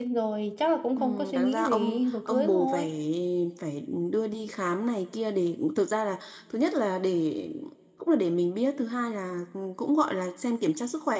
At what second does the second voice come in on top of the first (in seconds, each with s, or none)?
1.0 s